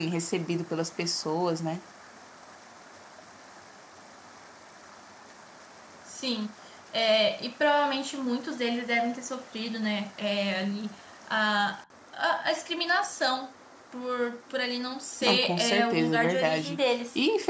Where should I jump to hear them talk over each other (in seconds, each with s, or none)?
15.2 s